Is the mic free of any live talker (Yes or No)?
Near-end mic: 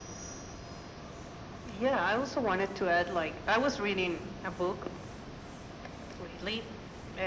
Yes